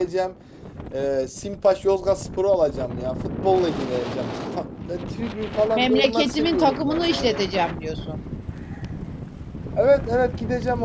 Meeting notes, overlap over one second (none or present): present